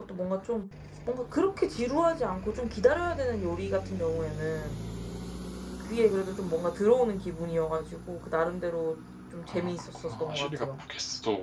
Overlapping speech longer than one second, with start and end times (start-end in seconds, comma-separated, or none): 9.5-10.8